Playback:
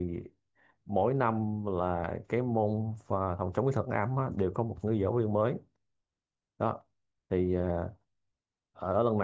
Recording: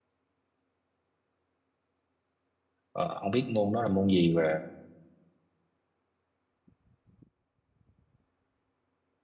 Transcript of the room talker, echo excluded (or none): ờ, không biết môn đó là môn gì và